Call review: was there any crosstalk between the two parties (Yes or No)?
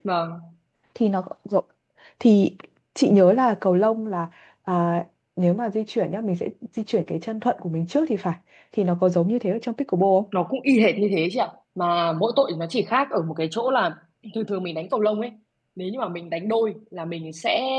No